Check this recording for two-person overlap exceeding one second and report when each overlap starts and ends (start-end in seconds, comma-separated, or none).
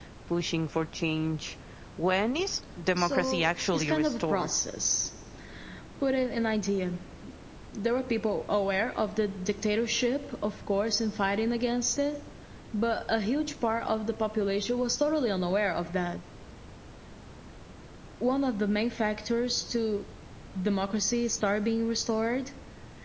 2.9-4.5